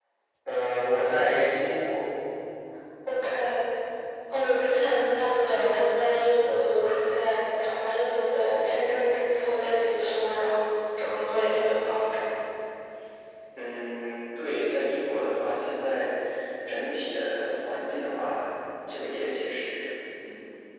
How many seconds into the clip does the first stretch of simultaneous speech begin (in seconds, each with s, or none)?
none